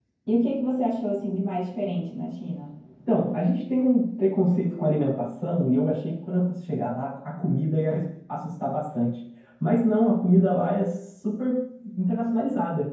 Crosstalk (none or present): none